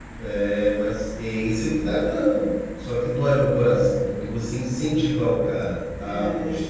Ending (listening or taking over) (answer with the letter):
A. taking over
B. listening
B